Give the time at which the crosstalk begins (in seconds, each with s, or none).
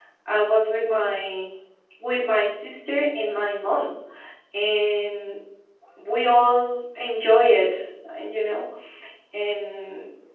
none